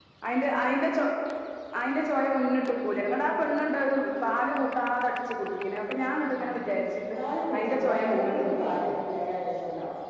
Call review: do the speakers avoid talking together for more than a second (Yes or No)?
No